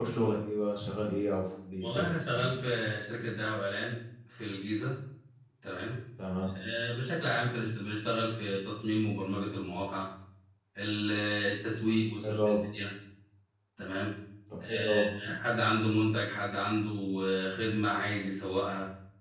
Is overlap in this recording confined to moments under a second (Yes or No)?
Yes